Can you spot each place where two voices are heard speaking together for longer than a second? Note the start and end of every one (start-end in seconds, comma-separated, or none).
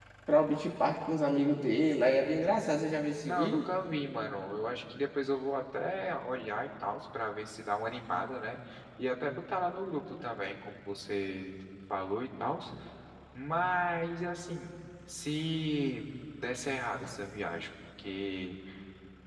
none